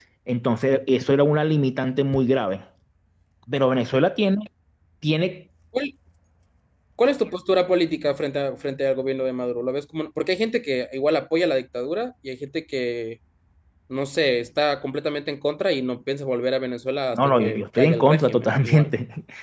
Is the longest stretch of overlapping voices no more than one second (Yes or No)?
No